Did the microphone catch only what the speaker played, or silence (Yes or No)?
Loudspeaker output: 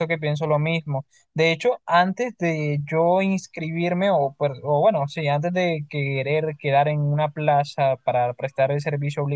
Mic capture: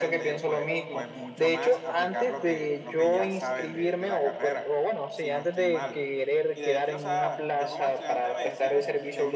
No